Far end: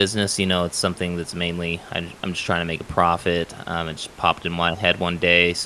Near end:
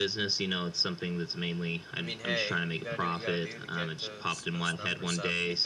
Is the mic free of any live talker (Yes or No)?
No